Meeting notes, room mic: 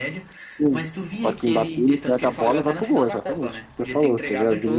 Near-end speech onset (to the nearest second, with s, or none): 1 s